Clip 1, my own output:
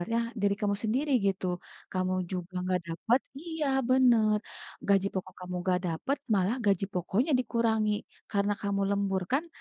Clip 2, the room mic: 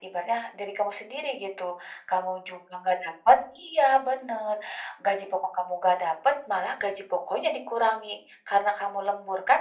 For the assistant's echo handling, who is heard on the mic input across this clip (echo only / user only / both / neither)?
echo only